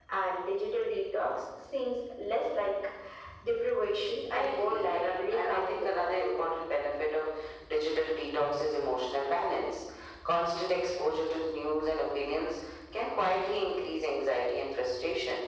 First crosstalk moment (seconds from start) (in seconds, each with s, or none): 4.3 s